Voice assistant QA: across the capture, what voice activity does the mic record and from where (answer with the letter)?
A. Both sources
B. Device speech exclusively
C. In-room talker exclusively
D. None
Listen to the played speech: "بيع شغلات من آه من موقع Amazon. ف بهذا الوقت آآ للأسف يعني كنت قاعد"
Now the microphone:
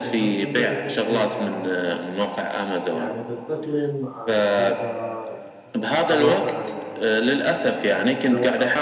A